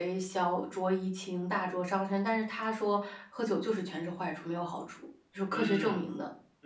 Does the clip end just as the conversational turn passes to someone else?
Yes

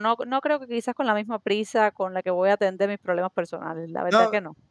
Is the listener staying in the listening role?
No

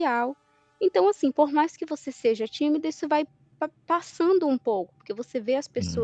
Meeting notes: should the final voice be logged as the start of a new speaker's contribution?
No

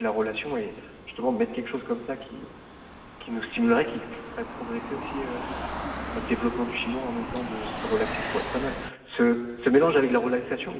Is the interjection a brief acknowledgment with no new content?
Yes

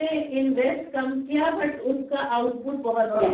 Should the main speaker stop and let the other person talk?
Yes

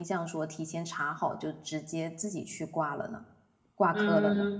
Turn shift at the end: Yes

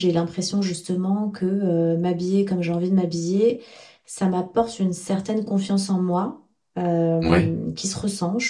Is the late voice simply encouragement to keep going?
Yes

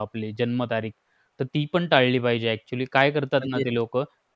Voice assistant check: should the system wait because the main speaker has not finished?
Yes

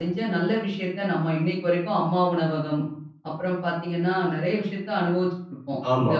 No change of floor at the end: No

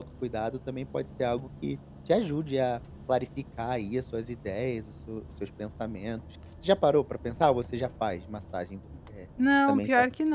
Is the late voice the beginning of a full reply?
Yes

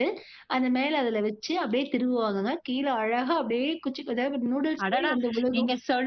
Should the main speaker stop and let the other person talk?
Yes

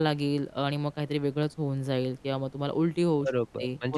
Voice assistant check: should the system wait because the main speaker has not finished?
No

